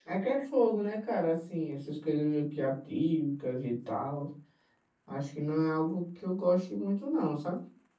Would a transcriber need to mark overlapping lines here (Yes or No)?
No